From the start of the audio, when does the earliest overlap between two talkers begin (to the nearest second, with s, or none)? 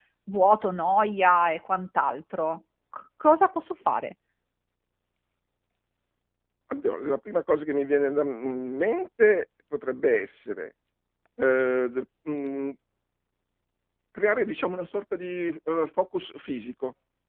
none